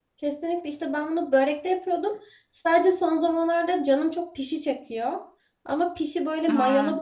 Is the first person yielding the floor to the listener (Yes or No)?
No